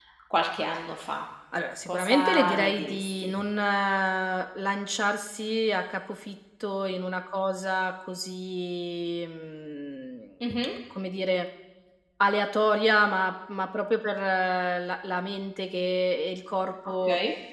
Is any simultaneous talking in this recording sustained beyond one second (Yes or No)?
Yes